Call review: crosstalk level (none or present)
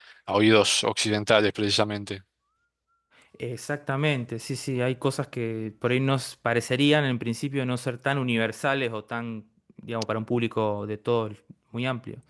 none